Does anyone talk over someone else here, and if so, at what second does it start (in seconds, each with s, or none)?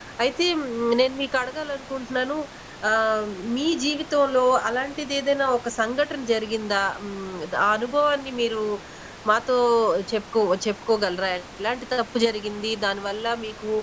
none